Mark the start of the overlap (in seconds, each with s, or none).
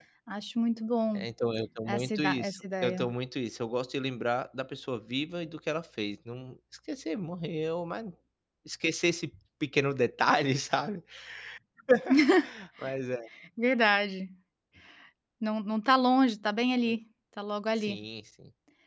1.9 s